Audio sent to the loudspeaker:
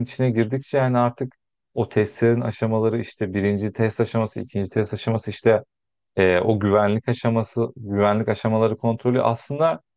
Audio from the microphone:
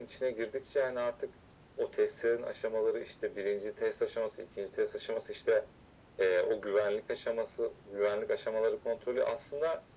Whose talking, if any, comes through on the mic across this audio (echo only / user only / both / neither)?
echo only